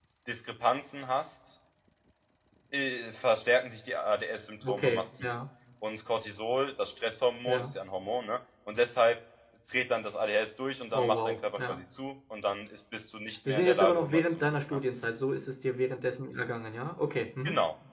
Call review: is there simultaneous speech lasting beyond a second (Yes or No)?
Yes